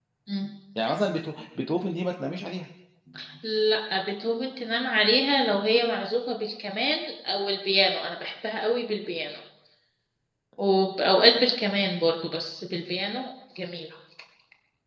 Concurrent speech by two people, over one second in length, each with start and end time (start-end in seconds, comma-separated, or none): none